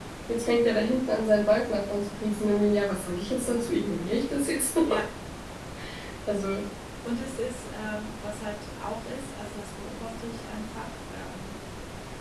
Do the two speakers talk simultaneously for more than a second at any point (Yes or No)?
No